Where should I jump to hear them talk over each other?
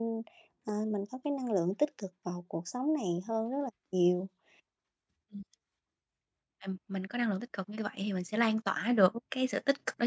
none

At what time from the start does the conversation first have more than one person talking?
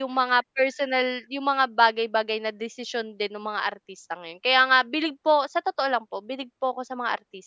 none

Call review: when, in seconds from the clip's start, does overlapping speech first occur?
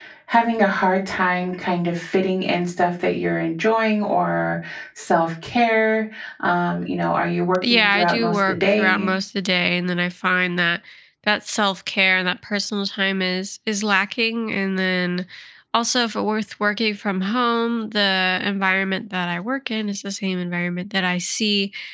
8 s

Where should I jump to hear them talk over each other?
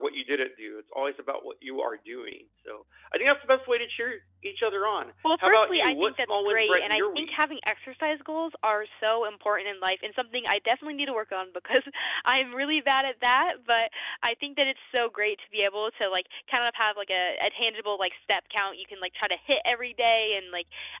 5 s

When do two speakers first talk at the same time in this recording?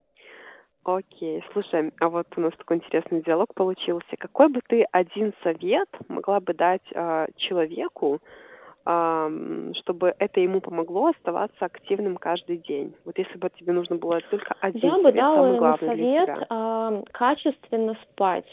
15 s

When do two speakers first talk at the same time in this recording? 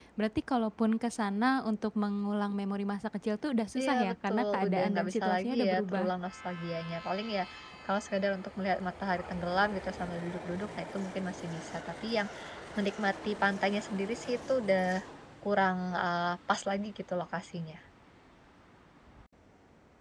4 s

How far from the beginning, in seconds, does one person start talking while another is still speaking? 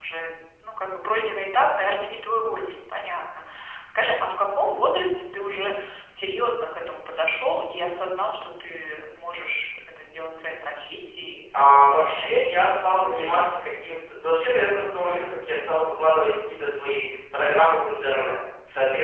12 s

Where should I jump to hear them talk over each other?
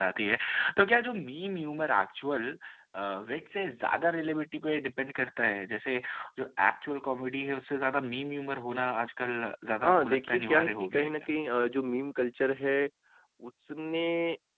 10 s

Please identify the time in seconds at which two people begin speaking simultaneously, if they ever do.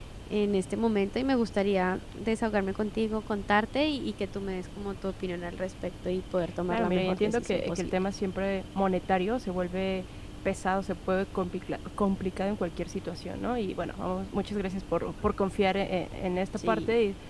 7 s

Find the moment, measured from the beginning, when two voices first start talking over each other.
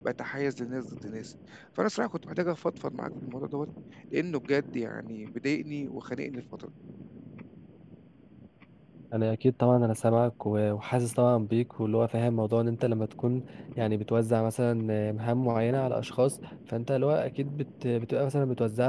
none

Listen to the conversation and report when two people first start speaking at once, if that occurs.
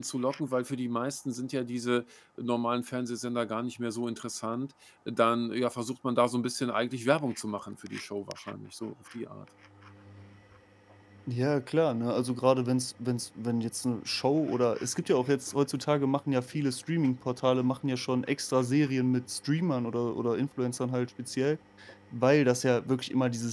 none

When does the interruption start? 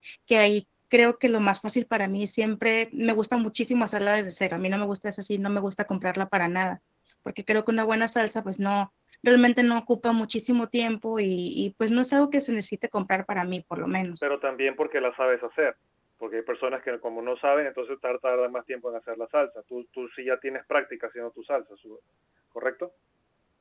none

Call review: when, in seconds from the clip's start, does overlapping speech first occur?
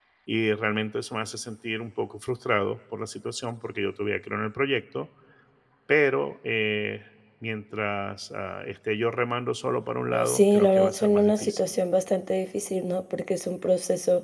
10 s

